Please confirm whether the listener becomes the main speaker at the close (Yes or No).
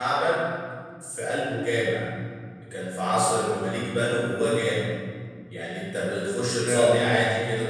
No